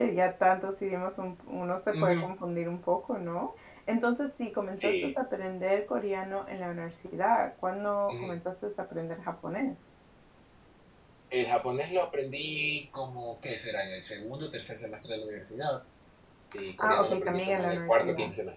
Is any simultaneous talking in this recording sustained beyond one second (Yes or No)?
Yes